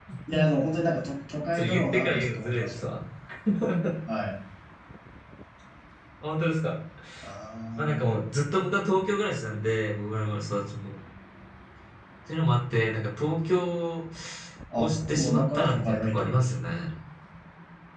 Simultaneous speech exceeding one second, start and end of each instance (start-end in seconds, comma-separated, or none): 1.5-2.8, 14.8-16.6